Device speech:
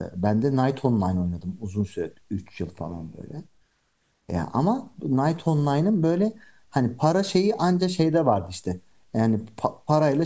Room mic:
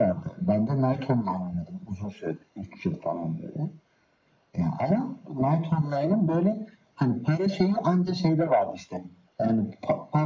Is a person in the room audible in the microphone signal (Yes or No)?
No